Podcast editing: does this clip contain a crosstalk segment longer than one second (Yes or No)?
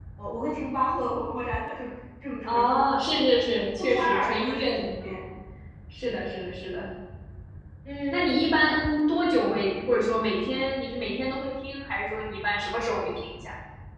Yes